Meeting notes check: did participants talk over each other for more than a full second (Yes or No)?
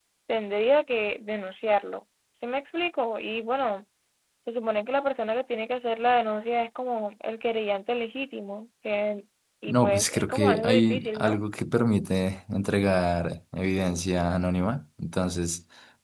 Yes